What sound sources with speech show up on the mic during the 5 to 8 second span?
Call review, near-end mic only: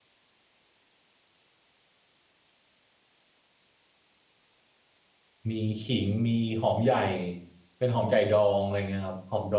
user only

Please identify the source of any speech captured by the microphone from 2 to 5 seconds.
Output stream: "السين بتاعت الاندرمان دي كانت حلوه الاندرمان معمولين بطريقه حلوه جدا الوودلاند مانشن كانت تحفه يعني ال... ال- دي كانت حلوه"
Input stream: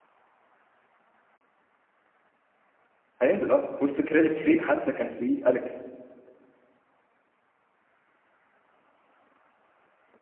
user only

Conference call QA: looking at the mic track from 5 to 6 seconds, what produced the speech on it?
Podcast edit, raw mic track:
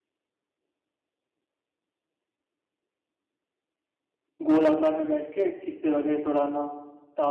user only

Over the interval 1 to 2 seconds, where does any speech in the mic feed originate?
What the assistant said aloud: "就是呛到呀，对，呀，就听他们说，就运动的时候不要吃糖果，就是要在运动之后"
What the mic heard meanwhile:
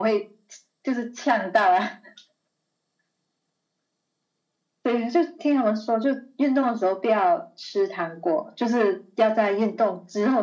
echo only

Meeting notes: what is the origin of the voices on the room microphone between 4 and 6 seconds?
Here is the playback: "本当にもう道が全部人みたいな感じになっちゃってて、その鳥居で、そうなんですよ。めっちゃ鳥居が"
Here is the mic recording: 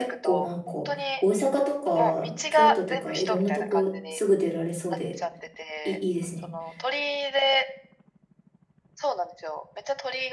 both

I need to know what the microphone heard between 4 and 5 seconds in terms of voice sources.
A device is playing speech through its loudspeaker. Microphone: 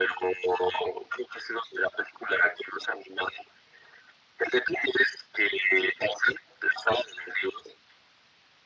echo only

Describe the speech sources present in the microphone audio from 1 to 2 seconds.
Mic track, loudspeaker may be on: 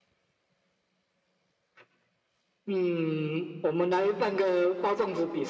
neither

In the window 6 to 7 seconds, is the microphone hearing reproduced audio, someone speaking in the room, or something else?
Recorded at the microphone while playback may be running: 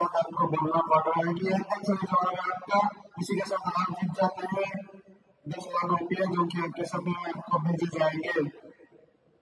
echo only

